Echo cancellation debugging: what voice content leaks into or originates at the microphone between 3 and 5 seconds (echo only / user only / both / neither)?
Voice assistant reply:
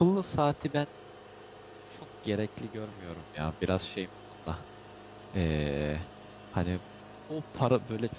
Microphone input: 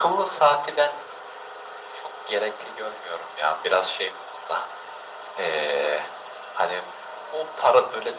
echo only